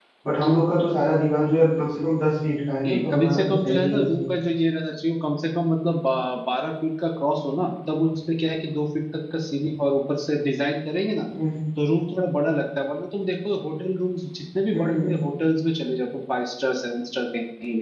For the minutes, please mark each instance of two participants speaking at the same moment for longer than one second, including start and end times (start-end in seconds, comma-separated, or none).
2.8-4.3